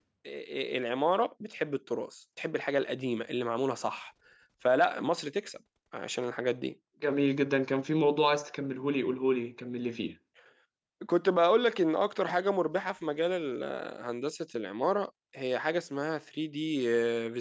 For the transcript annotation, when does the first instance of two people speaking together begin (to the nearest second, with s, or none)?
none